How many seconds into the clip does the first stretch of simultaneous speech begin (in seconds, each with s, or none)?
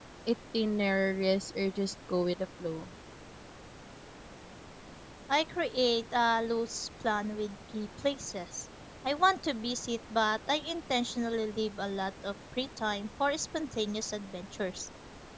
none